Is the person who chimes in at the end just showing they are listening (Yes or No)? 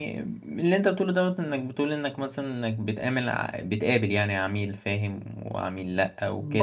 No